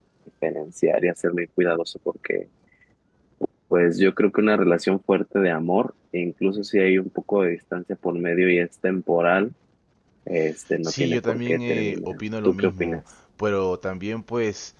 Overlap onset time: 10.8 s

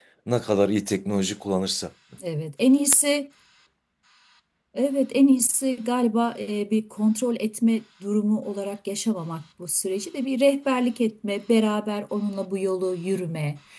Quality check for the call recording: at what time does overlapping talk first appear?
none

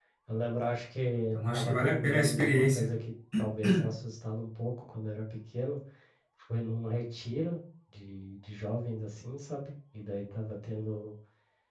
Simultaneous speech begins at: 1.3 s

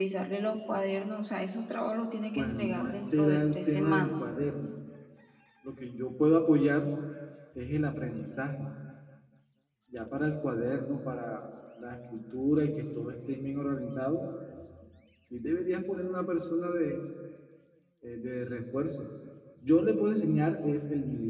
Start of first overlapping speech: 2.4 s

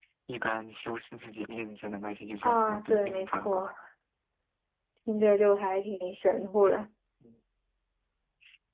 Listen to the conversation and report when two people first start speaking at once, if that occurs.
2.4 s

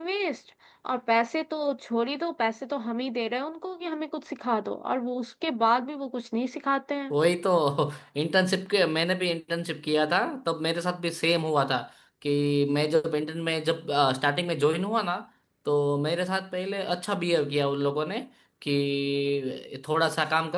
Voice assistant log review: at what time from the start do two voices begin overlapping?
none

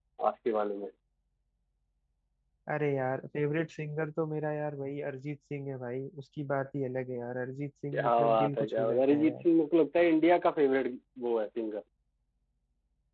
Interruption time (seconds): 7.9 s

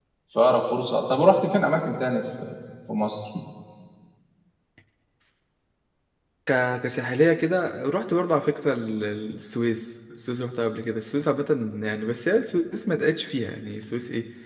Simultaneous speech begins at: none

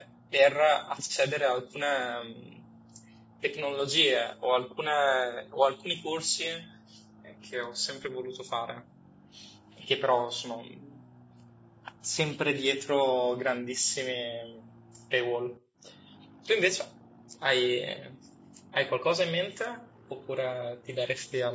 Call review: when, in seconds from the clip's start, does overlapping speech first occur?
none

